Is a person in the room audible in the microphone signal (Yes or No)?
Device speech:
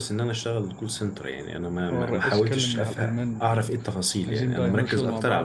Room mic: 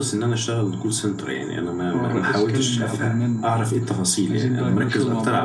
No